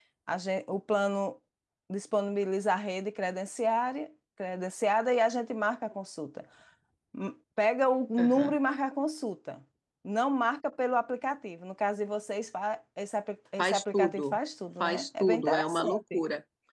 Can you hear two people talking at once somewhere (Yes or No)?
Yes